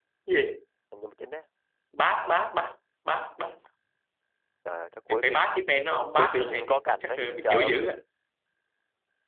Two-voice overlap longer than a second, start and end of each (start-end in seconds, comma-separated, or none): 6.2-7.8